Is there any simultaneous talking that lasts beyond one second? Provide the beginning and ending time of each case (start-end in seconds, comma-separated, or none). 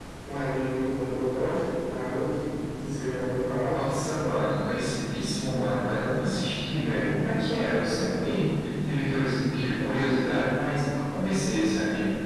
none